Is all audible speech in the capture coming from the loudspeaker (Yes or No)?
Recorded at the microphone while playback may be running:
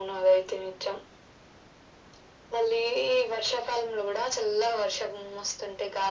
Yes